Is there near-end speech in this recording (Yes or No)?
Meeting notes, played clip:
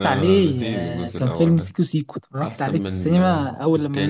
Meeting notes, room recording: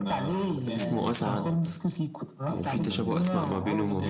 Yes